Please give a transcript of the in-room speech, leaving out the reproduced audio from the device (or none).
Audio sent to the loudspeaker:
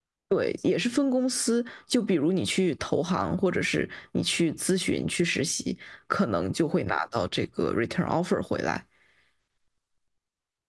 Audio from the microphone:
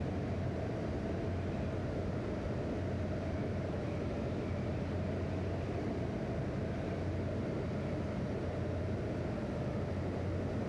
none